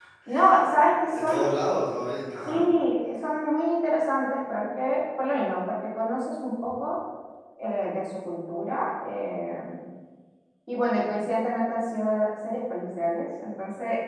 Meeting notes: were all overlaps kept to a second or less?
Yes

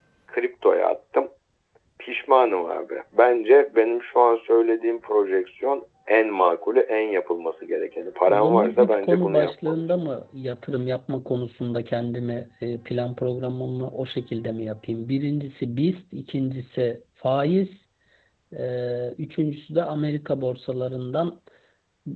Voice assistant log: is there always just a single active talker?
No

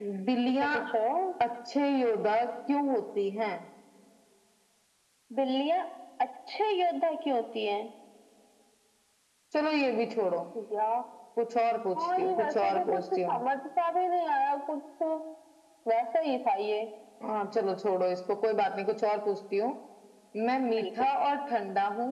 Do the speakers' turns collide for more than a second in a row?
Yes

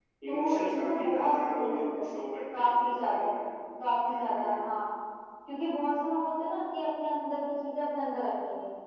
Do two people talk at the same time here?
Yes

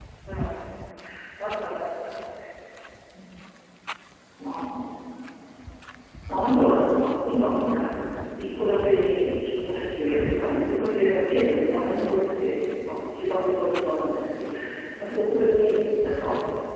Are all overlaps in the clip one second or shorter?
Yes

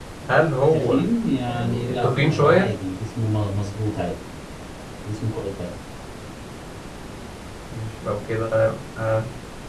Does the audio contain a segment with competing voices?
Yes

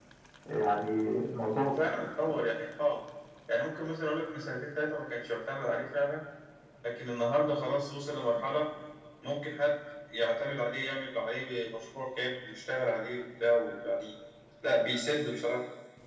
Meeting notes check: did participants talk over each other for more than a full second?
No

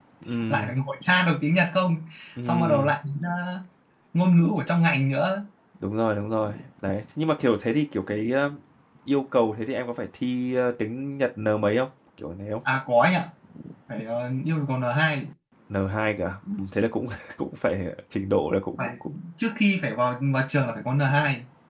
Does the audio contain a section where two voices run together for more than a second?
No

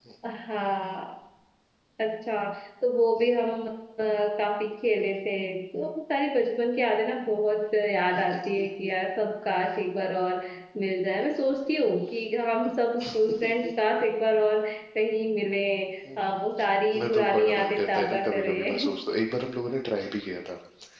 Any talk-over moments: Yes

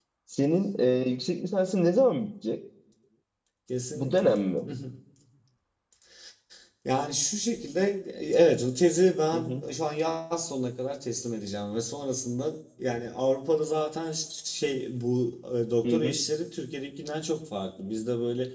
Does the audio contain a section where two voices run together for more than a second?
No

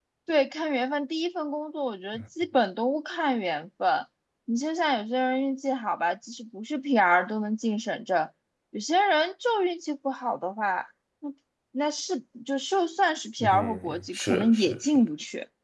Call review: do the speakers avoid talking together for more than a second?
No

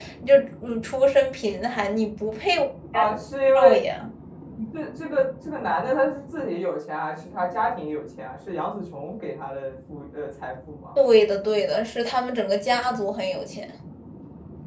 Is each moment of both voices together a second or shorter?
Yes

